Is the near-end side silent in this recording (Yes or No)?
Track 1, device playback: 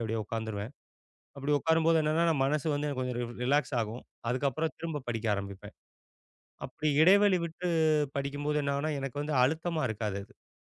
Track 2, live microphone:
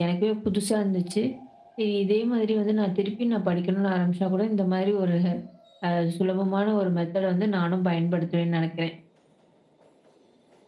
No